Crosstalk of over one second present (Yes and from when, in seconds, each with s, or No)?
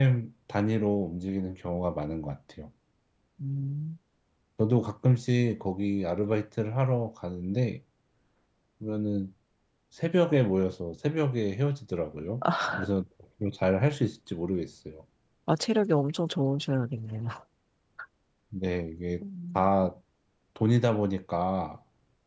No